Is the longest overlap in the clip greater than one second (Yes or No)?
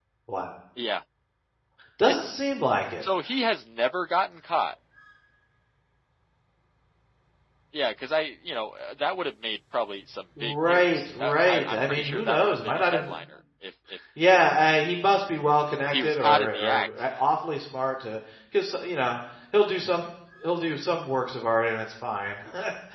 Yes